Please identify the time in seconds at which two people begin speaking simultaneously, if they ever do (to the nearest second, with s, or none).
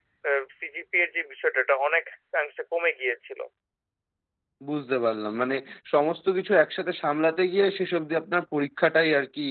none